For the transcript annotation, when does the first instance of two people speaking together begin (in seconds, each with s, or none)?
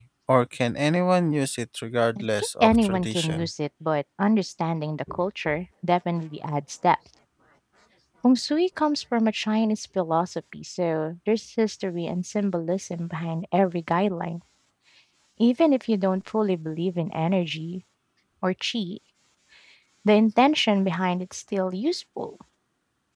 2.2 s